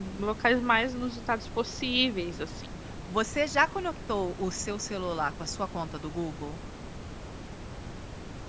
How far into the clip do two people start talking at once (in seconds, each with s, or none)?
none